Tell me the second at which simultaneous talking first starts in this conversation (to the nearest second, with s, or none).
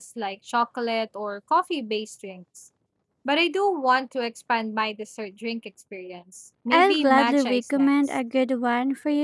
7 s